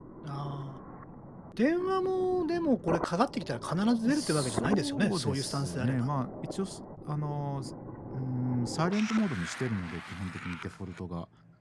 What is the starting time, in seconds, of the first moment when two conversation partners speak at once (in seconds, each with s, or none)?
4.0 s